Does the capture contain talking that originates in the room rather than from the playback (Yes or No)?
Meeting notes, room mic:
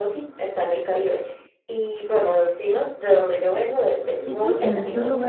Yes